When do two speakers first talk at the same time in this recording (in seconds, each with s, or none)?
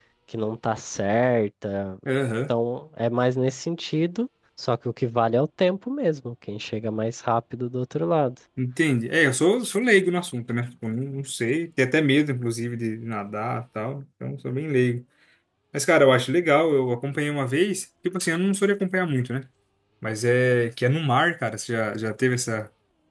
none